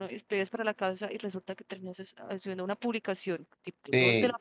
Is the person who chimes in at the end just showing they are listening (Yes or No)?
No